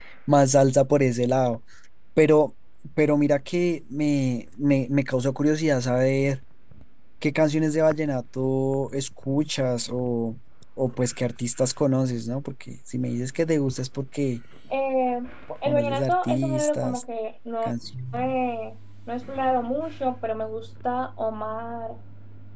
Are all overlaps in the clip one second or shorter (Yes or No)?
No